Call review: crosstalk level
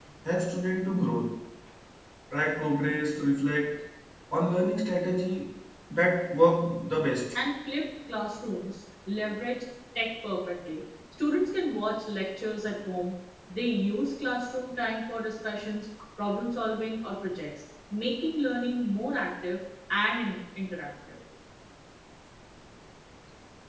none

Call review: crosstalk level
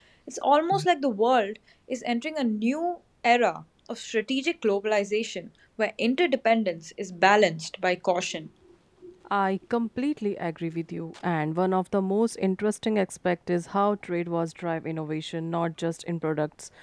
none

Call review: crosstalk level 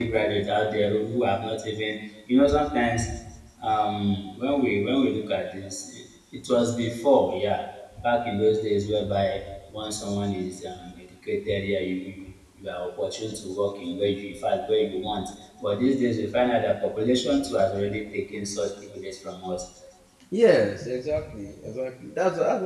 none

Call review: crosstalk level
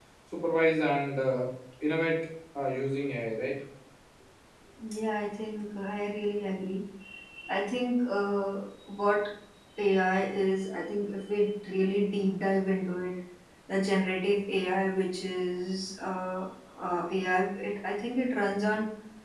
none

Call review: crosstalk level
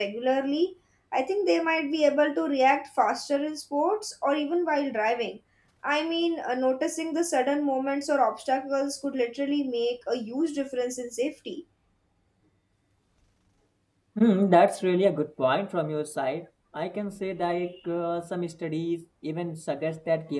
none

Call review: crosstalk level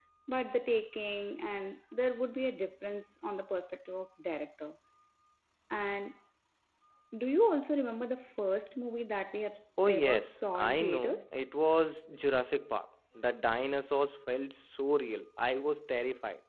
present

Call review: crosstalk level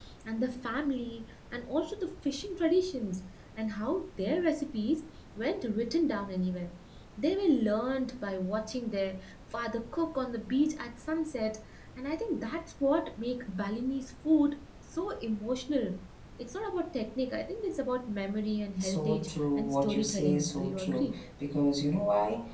present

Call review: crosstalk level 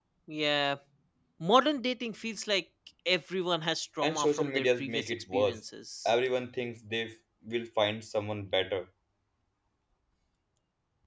present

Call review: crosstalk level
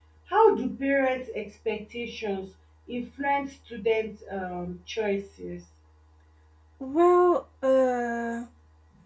none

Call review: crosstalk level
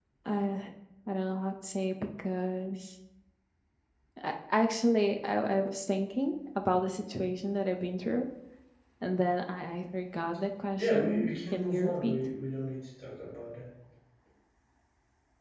present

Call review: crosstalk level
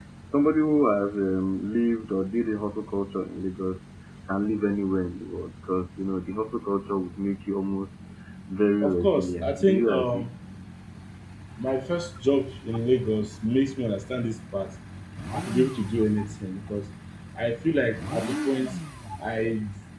present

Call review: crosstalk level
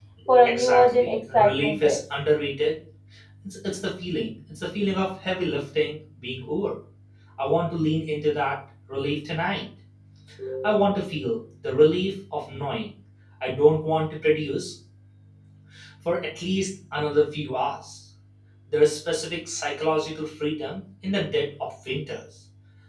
present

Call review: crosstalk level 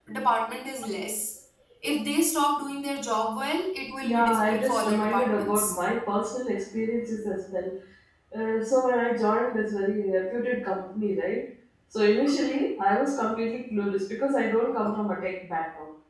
present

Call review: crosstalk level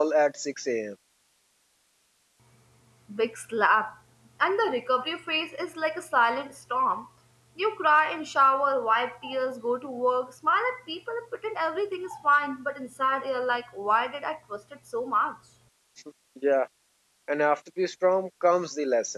none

